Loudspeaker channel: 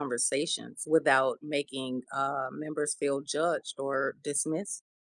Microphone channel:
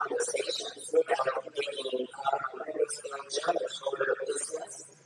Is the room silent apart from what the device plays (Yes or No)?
Yes